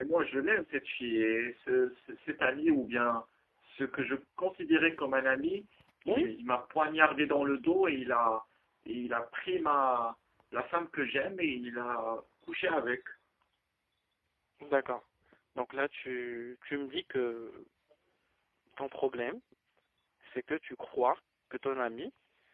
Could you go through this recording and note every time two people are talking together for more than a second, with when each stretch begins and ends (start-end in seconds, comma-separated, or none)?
none